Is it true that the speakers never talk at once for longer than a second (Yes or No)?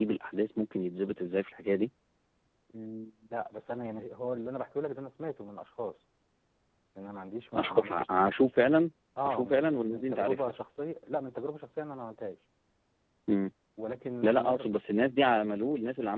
No